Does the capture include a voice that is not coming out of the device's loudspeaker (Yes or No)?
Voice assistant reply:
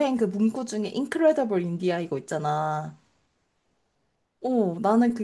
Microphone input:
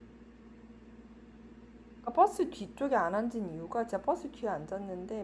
Yes